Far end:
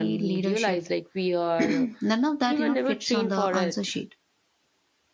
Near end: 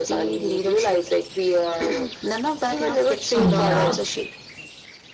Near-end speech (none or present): present